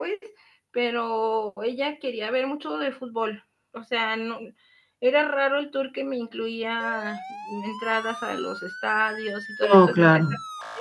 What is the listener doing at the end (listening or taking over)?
listening